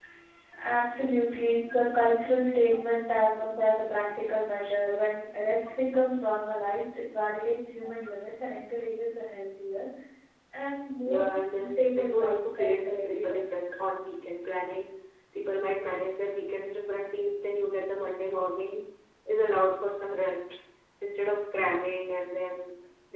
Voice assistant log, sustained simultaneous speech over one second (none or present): present